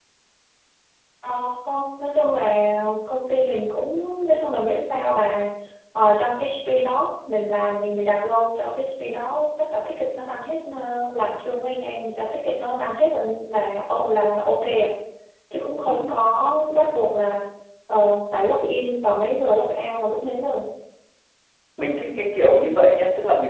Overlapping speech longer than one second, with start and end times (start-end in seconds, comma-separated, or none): none